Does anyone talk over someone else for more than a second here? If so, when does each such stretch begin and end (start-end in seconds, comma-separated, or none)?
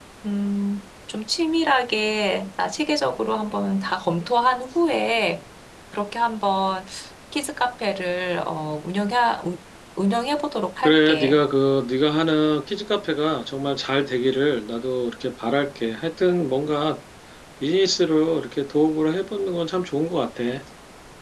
none